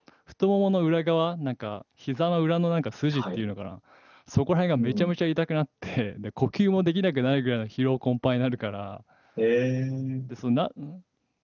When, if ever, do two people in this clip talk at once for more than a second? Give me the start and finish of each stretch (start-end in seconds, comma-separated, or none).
none